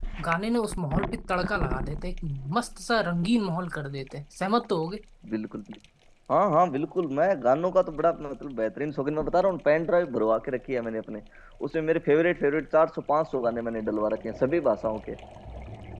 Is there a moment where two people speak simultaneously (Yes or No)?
No